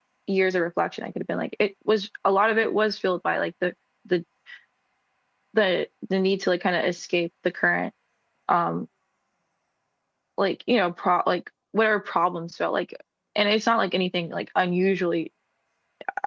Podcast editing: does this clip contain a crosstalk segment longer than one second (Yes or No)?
No